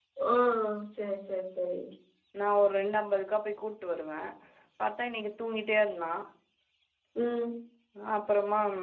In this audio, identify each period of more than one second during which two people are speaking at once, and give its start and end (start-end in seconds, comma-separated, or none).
none